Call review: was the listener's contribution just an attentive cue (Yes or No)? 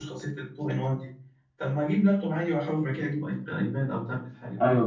No